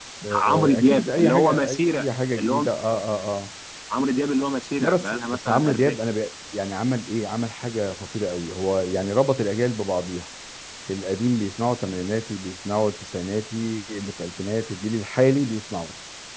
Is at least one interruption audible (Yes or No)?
Yes